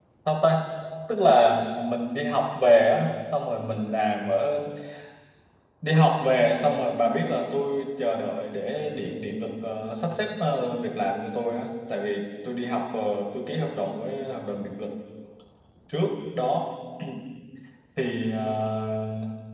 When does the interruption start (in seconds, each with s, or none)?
none